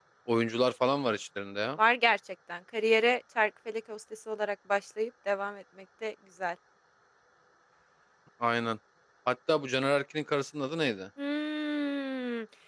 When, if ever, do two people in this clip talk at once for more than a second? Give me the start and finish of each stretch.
none

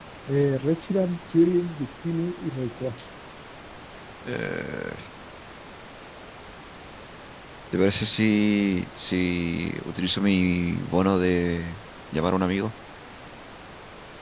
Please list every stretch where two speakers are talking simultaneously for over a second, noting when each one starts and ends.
none

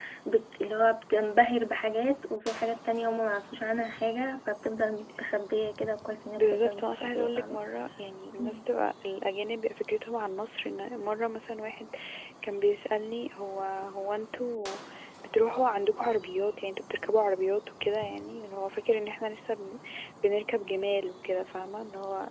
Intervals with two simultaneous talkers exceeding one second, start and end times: 6.4-7.6

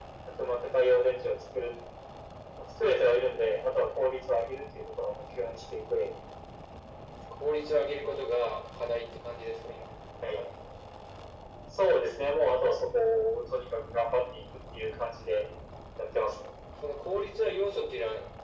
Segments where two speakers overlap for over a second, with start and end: none

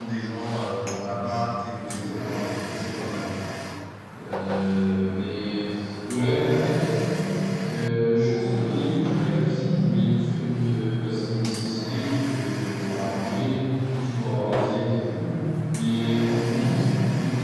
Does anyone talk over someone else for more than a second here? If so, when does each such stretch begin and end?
1.7-3.3

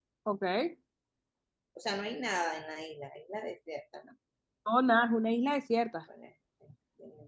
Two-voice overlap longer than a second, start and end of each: none

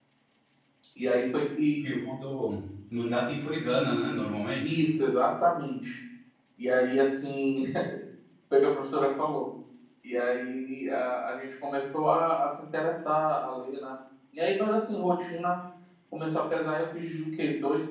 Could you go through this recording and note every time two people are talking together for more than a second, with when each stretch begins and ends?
none

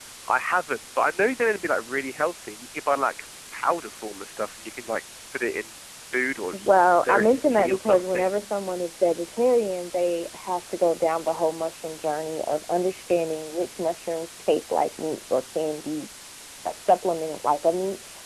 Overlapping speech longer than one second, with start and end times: 6.5-8.3

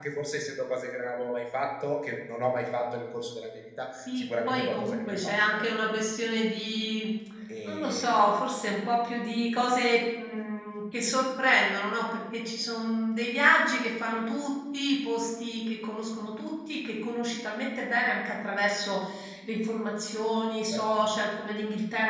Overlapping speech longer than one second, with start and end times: 4.0-5.7

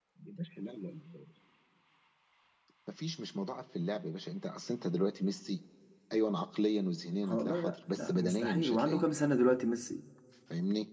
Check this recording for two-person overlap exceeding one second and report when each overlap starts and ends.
7.2-9.0

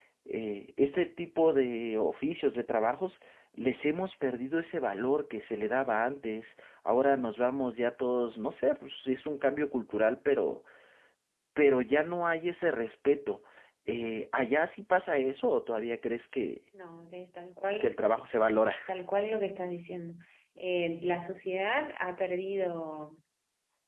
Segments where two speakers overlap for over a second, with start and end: none

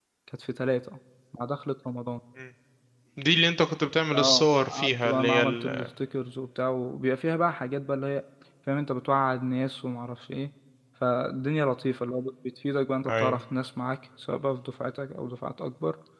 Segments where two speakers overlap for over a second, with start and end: 4.1-5.9

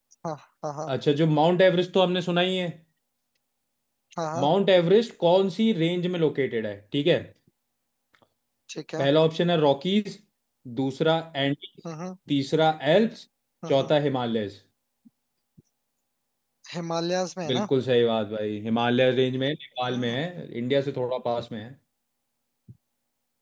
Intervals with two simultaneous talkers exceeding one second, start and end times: none

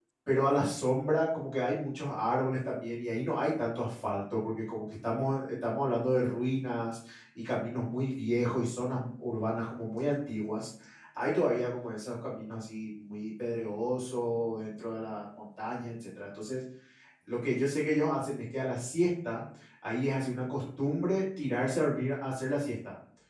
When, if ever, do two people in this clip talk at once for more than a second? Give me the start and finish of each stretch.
none

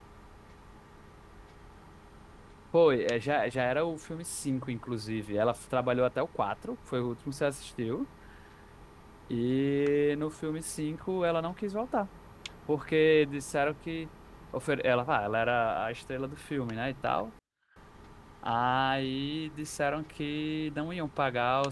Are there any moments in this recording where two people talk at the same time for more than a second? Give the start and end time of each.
none

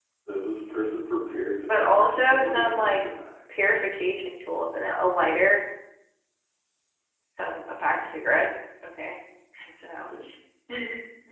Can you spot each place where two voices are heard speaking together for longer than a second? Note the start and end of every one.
1.6-3.1

